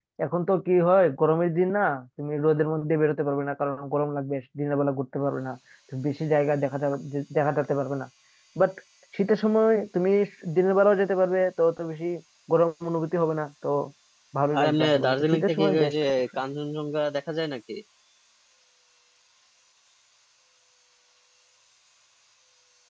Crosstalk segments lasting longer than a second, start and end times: 14.6-16.1

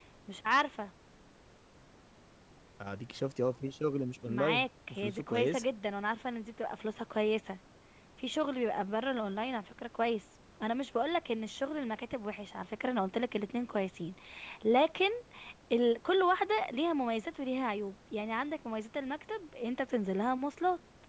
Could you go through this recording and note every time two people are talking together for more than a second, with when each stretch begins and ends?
4.3-5.6

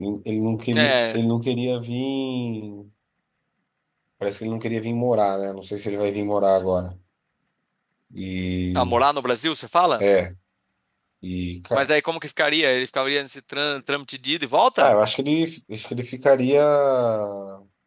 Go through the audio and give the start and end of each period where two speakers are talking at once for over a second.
none

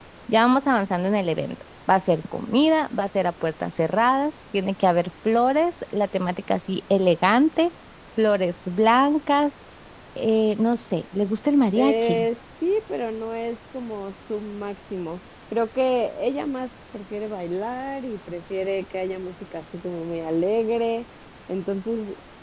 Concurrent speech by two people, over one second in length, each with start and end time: none

